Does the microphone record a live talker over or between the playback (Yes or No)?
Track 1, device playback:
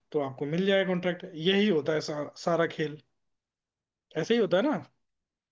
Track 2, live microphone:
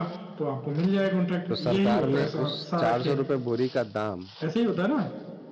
Yes